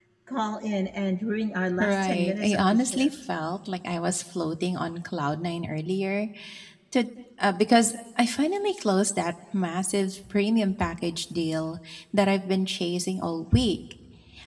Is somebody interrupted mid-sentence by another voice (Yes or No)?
Yes